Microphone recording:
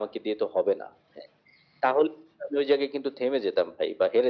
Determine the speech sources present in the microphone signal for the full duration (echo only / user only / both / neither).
echo only